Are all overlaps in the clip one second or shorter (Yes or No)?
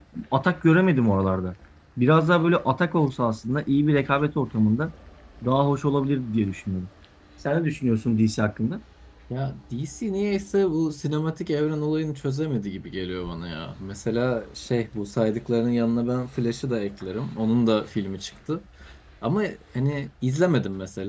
Yes